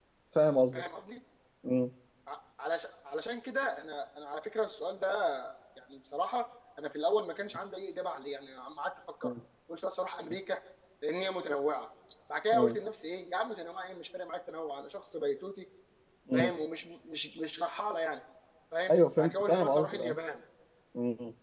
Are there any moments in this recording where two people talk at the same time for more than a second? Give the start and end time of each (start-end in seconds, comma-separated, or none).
18.9-20.2